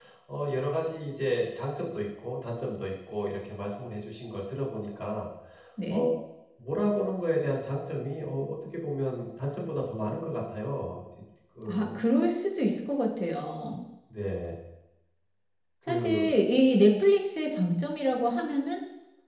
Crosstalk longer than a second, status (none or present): none